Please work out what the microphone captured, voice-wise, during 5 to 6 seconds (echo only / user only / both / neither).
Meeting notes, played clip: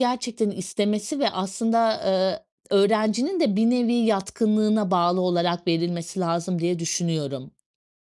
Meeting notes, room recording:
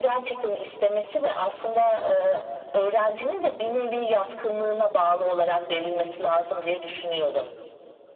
echo only